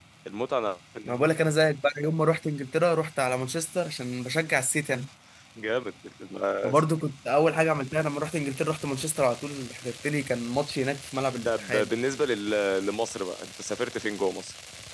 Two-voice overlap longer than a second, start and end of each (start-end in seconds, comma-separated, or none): none